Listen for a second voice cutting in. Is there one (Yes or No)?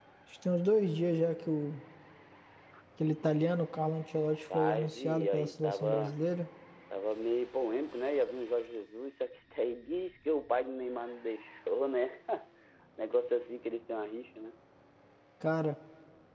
Yes